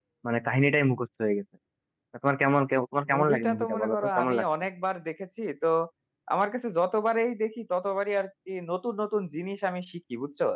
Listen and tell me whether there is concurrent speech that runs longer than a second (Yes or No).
Yes